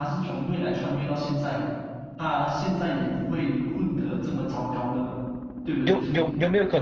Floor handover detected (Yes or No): Yes